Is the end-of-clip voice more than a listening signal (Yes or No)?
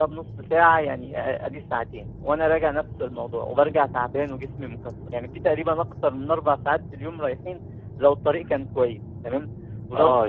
Yes